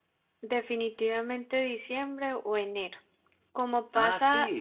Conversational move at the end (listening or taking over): listening